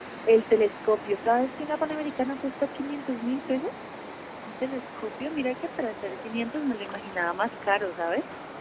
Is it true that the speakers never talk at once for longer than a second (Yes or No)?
Yes